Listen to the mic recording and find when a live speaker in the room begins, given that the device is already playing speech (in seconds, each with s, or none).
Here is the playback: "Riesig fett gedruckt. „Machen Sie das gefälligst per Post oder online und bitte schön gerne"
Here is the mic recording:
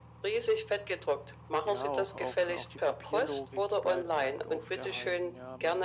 1.6 s